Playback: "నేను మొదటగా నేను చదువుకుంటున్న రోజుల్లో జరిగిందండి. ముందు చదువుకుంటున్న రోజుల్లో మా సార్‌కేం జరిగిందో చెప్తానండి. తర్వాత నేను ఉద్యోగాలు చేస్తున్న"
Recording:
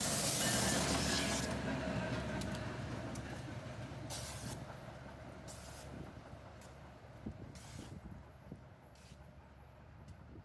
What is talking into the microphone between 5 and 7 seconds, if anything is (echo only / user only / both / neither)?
neither